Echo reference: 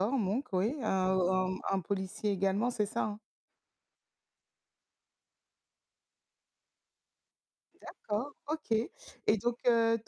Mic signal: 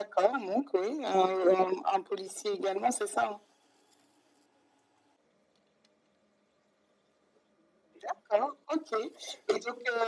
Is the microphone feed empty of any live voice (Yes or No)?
Yes